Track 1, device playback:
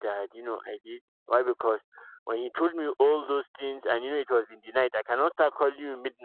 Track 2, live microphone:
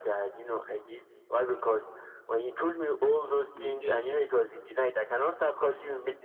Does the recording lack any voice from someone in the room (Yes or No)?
No